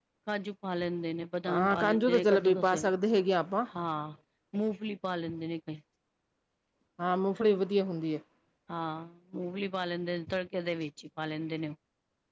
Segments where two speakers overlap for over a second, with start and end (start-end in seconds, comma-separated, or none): 1.5-2.9